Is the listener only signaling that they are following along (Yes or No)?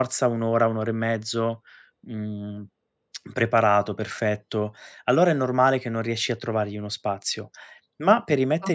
Yes